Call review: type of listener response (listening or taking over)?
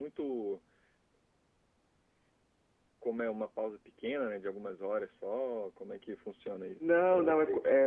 taking over